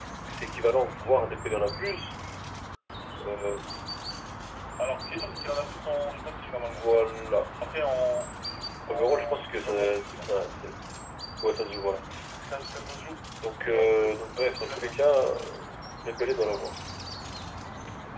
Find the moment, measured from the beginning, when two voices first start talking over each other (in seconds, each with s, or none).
8.9 s